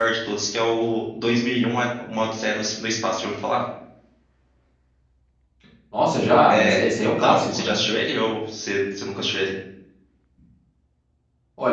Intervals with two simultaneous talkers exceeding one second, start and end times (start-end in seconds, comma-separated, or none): 6.5-7.8